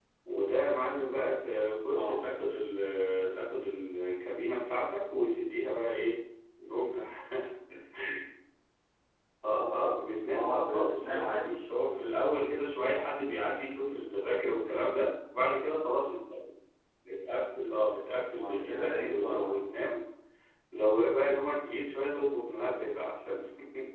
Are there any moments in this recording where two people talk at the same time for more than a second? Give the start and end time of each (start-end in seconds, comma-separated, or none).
10.3-11.5, 18.3-19.5